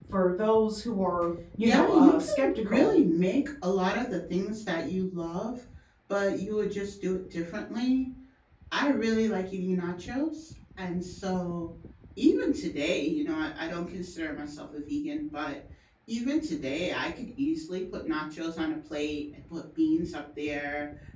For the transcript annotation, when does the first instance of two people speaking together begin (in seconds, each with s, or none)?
1.6 s